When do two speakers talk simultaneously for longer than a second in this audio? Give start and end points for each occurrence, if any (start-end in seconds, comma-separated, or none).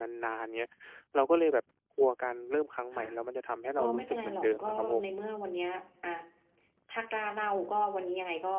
3.8-5.0